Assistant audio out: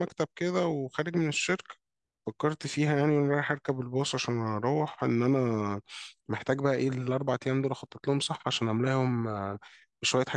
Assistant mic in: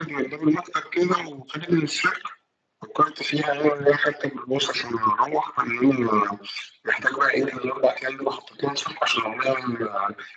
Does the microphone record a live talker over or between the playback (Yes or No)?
No